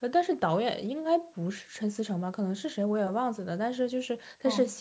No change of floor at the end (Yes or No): Yes